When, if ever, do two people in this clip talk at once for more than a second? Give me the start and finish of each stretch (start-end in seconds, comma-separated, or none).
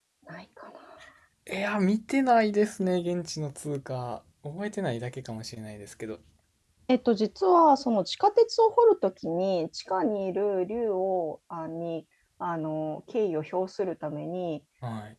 none